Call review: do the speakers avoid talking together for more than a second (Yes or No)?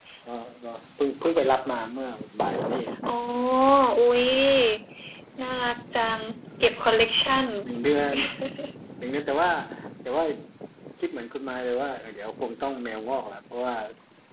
Yes